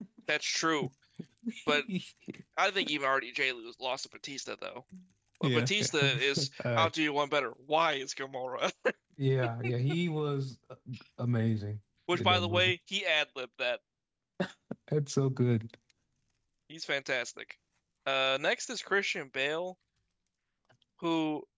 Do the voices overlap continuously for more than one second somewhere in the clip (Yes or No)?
Yes